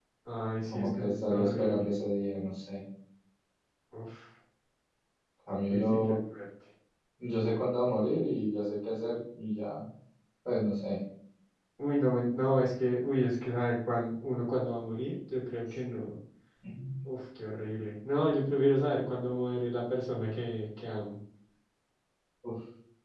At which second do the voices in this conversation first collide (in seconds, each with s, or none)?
0.6 s